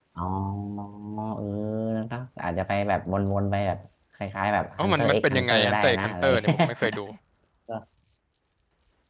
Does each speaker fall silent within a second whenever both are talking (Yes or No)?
No